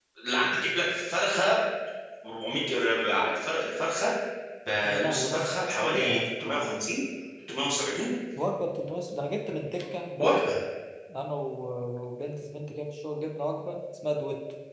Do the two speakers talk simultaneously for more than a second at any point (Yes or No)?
Yes